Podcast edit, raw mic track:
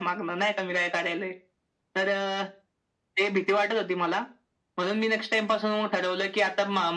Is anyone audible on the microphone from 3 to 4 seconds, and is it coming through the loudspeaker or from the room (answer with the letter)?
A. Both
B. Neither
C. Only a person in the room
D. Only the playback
D